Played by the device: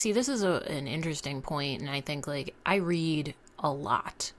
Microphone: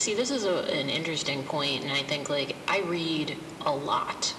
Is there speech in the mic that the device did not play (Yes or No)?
No